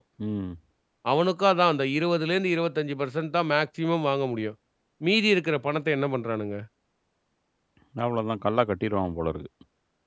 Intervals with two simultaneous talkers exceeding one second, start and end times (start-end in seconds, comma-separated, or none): none